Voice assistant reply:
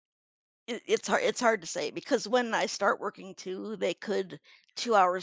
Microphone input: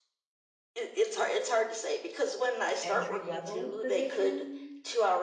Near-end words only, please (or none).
entry level position